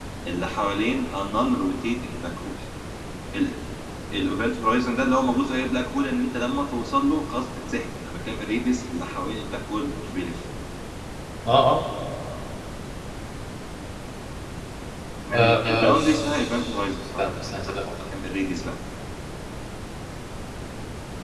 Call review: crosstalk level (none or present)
present